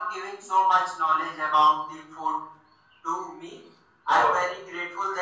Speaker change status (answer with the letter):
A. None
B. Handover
A